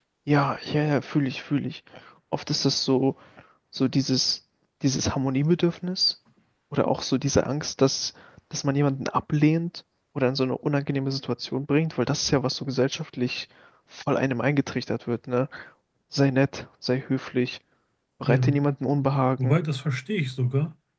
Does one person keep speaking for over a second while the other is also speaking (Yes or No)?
No